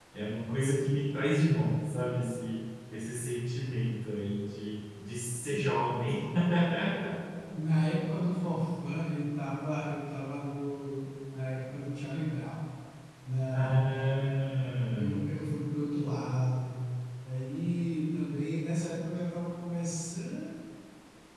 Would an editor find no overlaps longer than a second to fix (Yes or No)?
Yes